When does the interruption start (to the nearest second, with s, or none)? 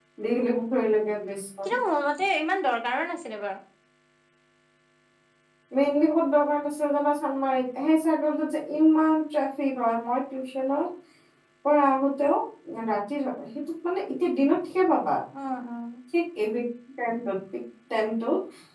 none